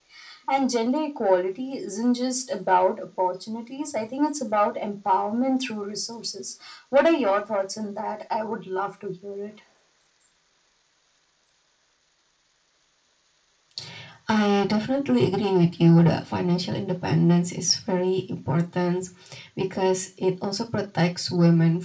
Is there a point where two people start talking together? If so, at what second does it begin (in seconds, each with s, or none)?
none